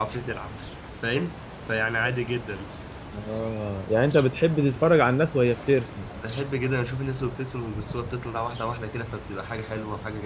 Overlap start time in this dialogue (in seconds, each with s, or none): none